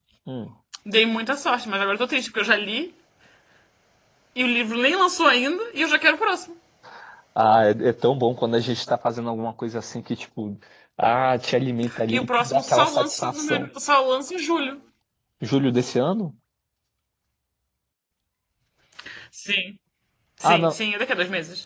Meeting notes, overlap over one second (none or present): present